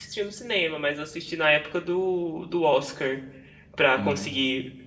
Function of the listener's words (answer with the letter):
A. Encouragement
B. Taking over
A